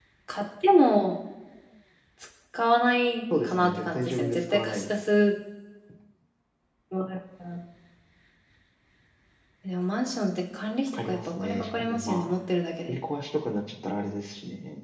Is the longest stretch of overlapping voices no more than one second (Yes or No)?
No